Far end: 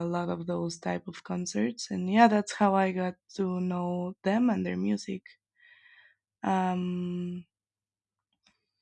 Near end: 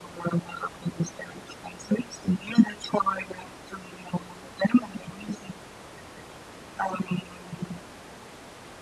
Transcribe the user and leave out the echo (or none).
none